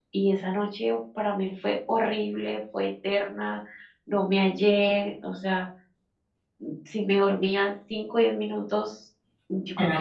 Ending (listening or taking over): listening